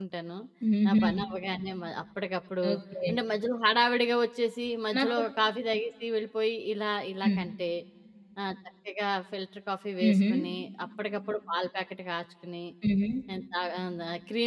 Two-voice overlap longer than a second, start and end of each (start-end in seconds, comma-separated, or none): none